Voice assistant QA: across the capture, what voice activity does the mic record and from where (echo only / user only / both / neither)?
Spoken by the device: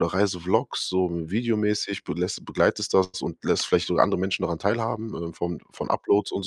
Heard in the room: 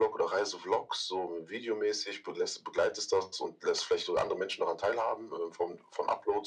echo only